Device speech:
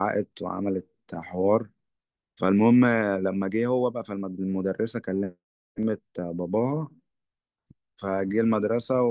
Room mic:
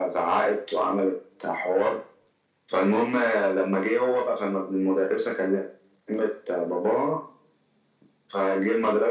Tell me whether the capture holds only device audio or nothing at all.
Yes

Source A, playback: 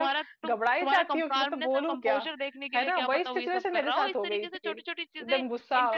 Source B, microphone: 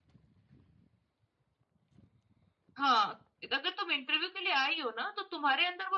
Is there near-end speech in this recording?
Yes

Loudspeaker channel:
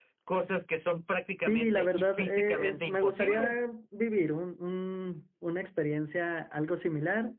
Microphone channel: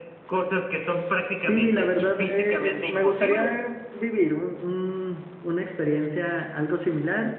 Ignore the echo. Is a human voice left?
No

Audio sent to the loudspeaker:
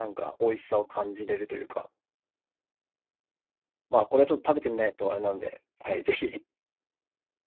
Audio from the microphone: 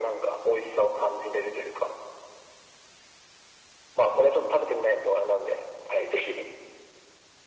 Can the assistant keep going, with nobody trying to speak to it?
Yes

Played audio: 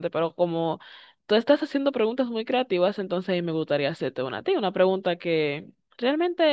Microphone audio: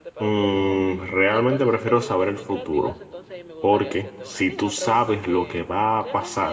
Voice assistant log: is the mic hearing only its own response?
No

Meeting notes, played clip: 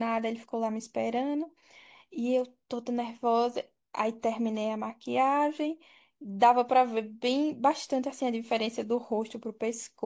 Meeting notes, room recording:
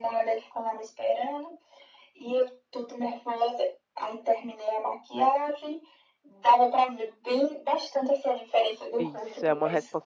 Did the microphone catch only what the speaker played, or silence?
No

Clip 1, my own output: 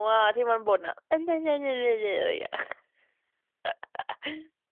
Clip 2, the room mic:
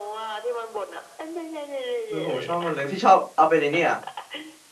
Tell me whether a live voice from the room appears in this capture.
Yes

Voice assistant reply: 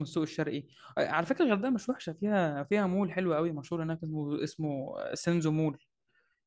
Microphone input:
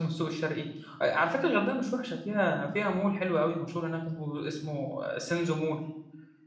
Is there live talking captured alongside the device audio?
No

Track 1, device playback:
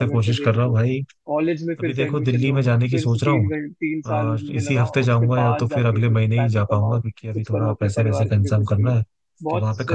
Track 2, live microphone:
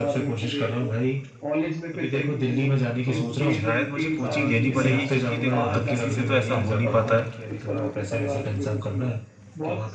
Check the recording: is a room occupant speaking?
Yes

